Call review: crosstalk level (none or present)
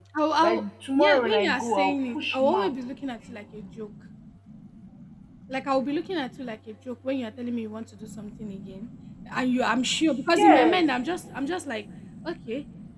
present